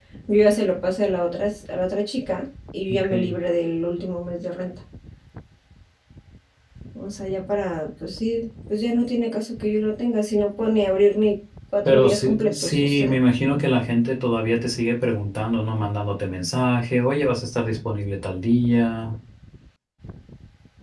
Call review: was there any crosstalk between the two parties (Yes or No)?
Yes